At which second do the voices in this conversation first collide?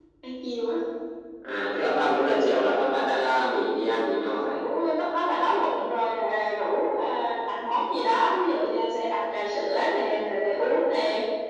none

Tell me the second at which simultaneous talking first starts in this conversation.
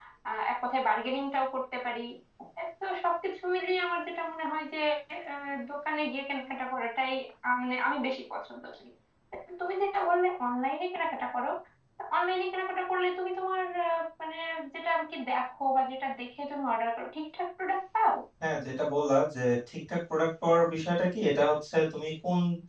none

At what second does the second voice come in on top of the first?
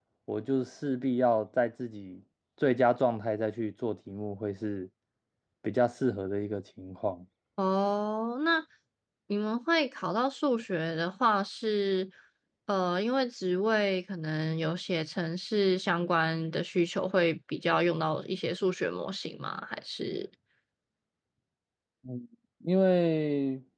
none

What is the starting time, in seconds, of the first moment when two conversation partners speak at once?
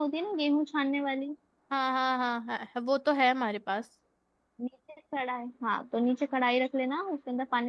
none

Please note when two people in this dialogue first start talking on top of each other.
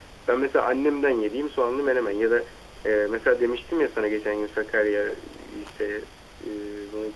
none

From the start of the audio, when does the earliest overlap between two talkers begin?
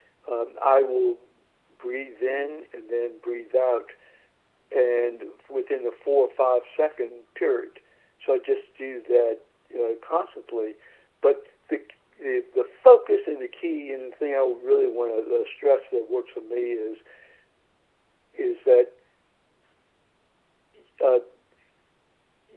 none

